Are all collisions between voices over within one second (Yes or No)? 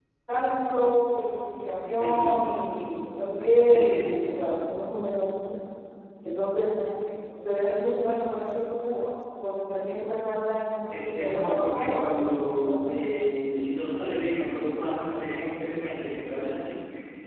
No